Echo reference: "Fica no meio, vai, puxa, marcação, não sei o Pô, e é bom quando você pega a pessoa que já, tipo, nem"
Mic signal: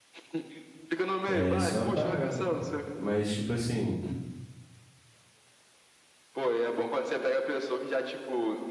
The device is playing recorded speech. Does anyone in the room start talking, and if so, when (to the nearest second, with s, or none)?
1 s